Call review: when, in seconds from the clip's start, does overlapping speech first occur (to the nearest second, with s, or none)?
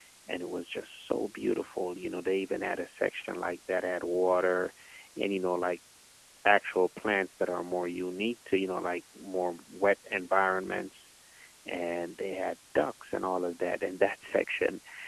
none